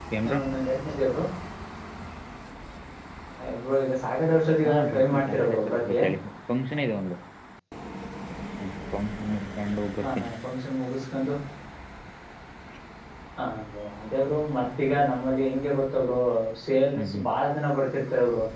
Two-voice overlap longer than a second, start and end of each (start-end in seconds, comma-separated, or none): 4.7-6.0